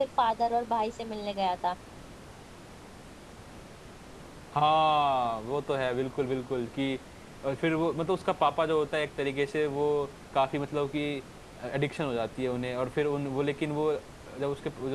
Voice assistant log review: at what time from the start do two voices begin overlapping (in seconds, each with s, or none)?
none